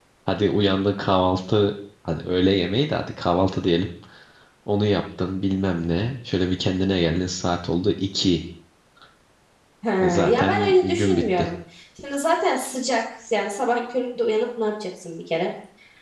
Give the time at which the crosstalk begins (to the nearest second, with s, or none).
10 s